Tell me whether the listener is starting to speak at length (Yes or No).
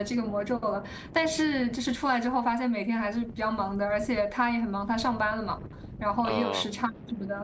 No